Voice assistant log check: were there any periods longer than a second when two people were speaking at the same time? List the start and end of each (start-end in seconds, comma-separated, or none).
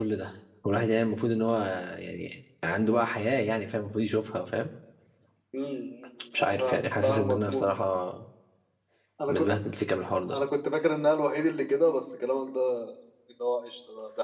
6.4-7.6